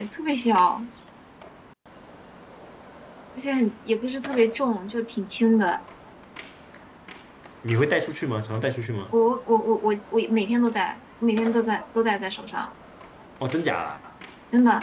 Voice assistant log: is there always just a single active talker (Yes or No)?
Yes